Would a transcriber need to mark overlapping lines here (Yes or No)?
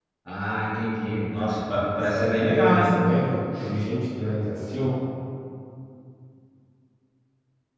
Yes